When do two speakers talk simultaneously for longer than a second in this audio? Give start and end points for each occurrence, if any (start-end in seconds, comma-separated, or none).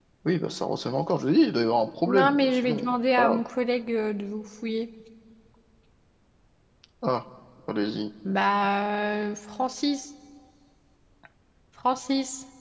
2.1-3.4